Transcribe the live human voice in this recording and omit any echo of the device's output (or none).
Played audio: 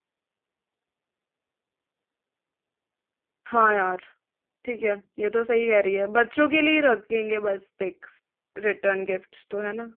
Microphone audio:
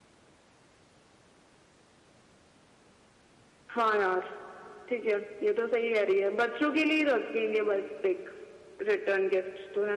none